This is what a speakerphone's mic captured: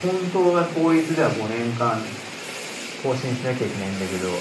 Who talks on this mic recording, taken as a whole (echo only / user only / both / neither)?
echo only